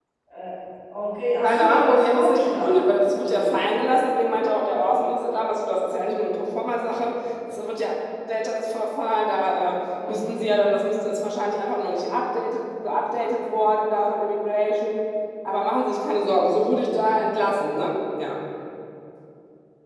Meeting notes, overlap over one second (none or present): present